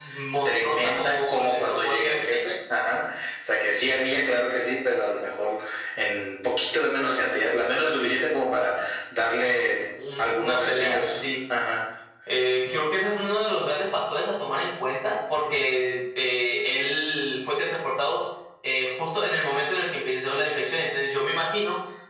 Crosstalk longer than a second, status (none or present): present